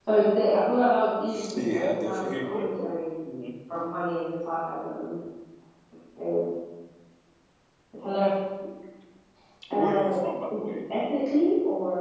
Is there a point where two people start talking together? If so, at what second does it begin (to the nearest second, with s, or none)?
2 s